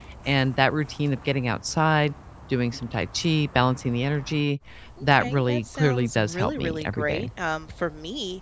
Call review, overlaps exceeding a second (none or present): present